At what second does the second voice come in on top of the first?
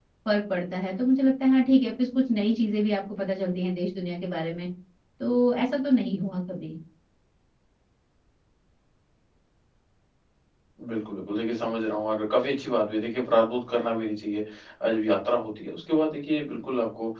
none

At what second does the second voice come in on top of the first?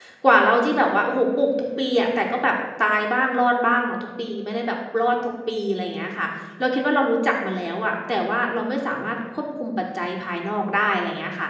none

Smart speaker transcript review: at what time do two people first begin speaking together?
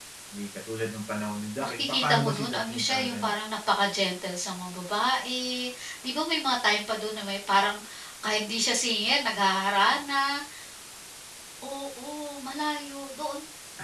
1.6 s

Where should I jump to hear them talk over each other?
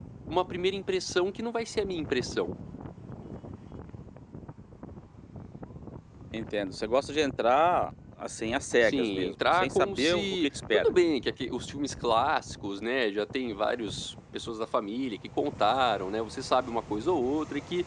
8.8 s

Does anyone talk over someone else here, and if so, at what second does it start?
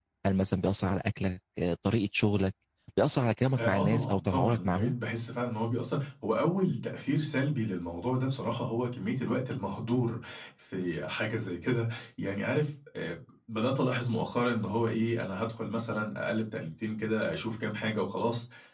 3.6 s

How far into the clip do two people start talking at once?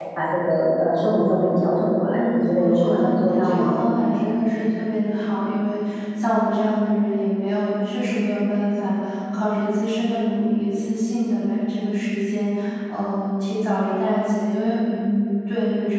2.1 s

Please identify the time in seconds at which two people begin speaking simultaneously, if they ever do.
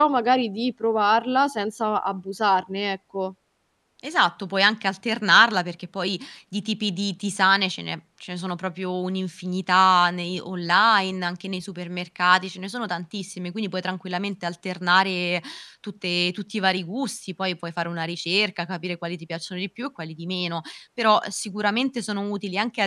none

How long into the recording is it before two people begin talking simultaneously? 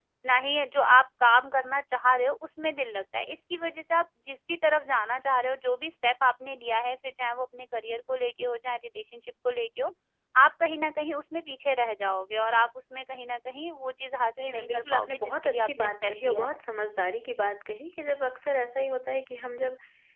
14.3 s

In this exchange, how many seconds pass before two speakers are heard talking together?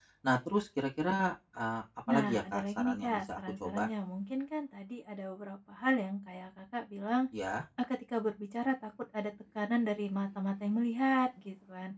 2.1 s

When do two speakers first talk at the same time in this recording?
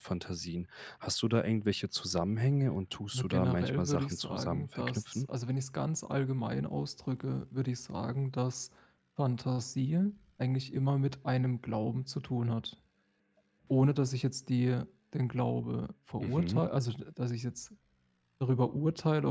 3.1 s

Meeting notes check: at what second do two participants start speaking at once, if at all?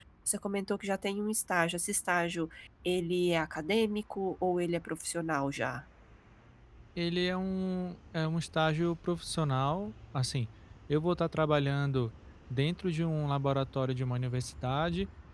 none

